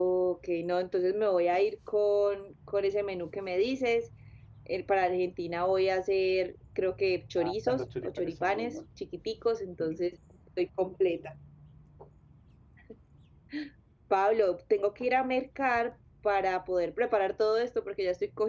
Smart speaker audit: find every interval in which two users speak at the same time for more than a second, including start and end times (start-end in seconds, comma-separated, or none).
7.4-8.8